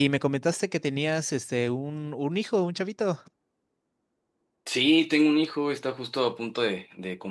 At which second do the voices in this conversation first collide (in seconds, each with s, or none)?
none